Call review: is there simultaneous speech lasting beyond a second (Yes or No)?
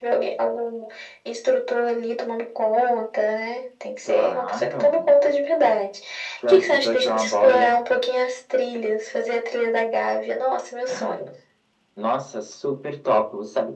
Yes